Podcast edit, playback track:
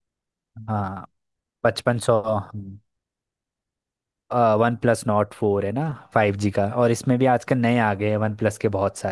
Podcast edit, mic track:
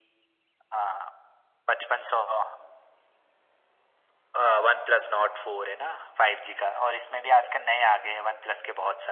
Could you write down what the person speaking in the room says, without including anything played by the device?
none

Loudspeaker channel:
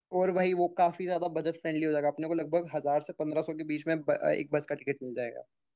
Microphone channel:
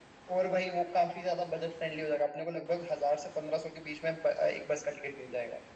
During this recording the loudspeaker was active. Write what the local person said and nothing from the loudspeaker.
none

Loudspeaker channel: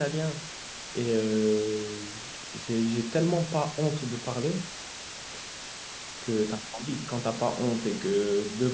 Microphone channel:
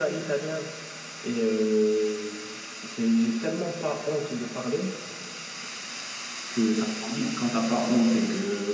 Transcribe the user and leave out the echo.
none

